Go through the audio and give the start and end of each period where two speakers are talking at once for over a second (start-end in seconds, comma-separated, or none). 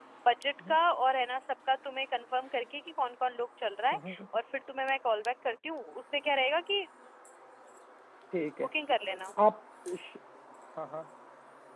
none